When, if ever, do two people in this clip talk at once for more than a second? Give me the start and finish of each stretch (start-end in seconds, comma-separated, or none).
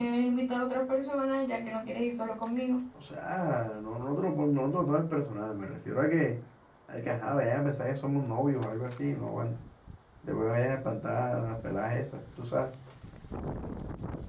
none